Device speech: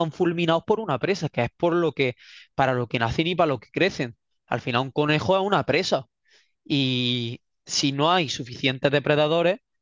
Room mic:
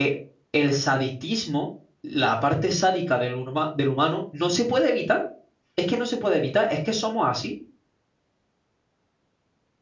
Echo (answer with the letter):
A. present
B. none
B